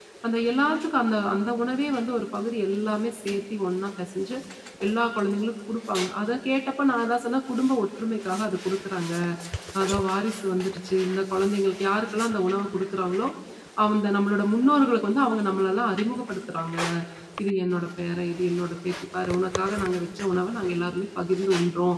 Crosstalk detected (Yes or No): No